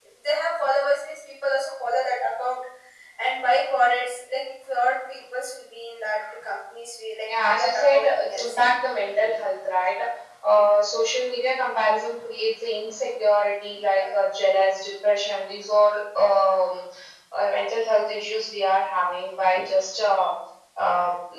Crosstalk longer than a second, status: present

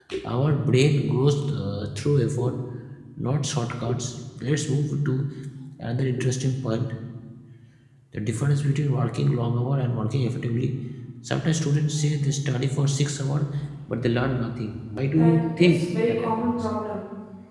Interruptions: present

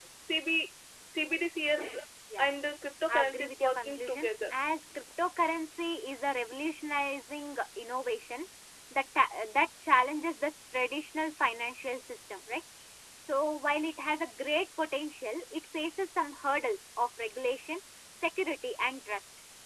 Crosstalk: present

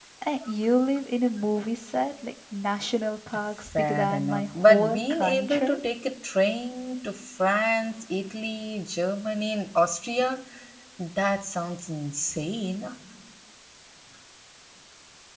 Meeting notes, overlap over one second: present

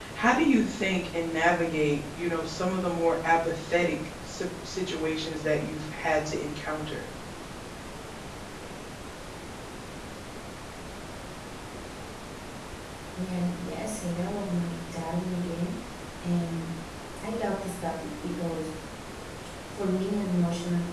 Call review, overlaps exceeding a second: none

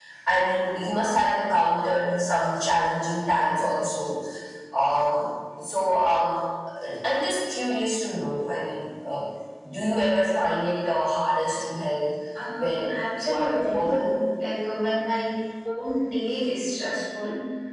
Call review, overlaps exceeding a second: present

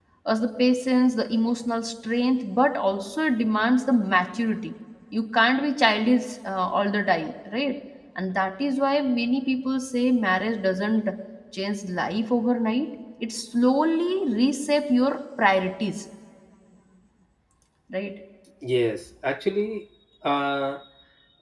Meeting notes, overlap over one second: none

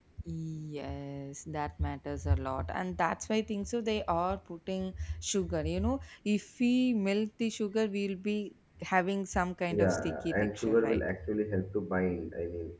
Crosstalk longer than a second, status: present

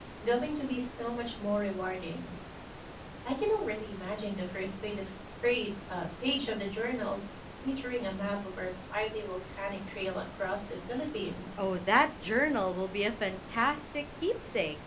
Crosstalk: none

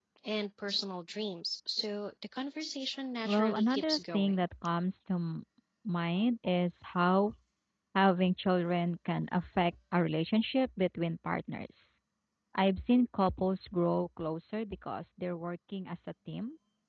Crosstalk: present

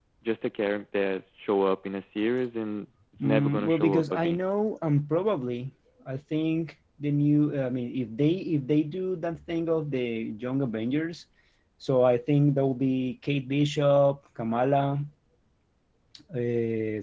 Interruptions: present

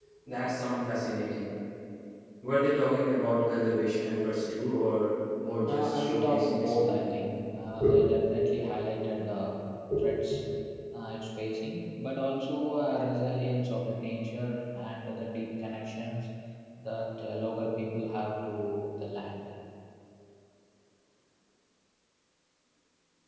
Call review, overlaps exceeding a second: present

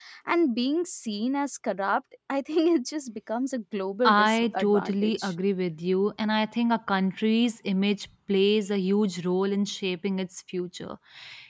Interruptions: present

